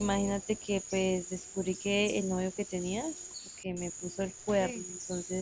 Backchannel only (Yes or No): Yes